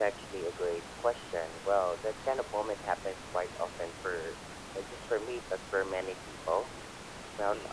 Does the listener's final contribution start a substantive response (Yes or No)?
No